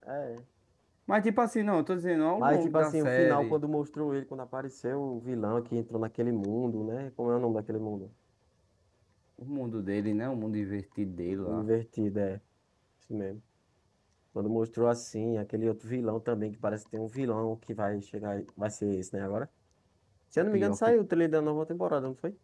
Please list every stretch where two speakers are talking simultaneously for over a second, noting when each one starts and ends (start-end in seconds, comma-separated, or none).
2.4-3.6